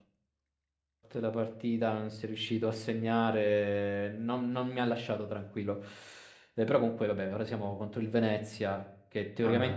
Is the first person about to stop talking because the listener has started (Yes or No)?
No